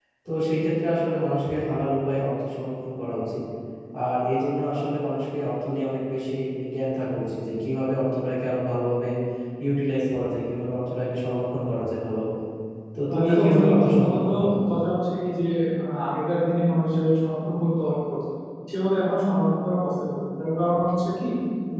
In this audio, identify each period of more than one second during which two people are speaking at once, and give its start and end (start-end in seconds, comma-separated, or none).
13.1-14.3